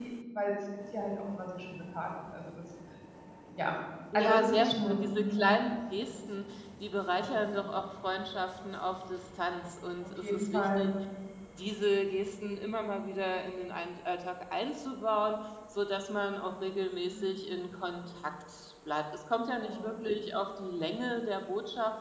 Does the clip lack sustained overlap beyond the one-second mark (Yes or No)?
No